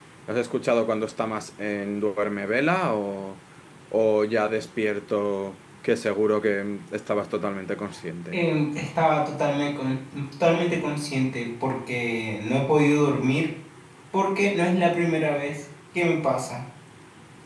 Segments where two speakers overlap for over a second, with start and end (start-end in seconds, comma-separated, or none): none